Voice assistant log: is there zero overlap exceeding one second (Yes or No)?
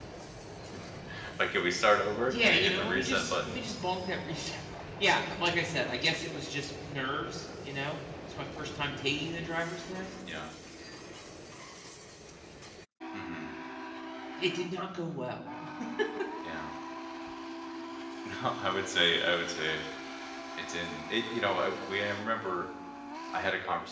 No